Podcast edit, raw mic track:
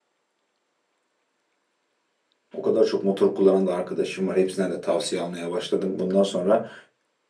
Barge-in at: 2.5 s

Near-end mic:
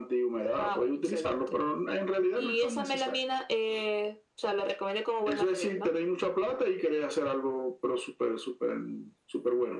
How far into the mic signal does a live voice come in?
none

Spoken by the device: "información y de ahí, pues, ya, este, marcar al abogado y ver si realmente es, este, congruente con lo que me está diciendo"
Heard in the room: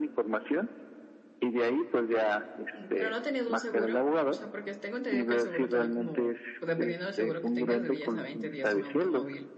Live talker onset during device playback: 2.7 s

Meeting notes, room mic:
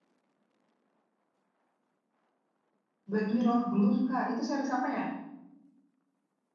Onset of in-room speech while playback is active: 3.1 s

